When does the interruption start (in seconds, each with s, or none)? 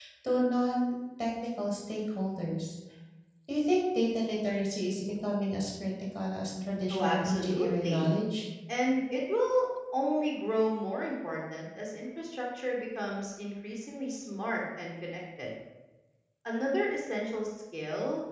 6.9 s